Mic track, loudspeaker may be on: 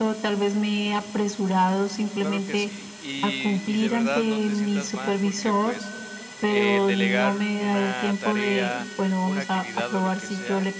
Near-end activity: present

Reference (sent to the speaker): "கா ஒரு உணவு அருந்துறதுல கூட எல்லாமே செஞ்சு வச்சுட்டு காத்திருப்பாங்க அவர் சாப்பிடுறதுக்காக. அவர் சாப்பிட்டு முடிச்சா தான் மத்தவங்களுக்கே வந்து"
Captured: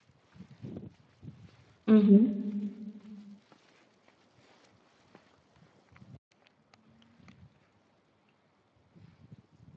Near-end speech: present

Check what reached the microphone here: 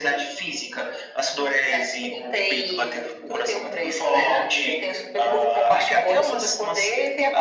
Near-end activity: none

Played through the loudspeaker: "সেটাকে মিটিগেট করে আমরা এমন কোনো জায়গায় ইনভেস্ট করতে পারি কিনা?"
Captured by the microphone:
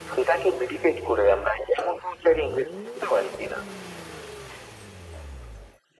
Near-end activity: none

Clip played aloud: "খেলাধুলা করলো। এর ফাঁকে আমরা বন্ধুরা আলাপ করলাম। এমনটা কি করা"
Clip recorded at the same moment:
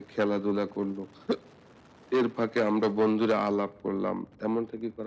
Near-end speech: none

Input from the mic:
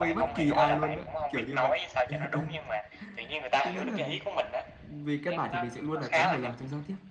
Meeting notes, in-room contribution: present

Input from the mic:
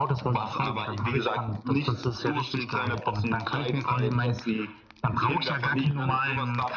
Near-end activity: none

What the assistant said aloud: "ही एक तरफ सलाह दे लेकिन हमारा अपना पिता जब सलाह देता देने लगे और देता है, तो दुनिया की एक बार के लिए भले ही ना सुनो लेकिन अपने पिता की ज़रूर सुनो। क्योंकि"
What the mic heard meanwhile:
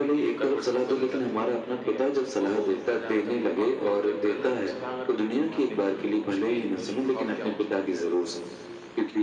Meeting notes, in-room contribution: present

